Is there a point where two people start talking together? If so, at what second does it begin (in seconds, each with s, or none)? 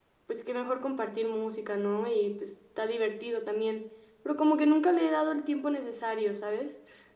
none